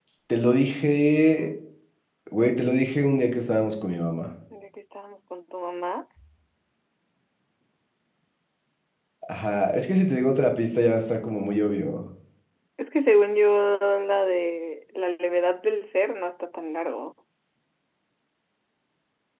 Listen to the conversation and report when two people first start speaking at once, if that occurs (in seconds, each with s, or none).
none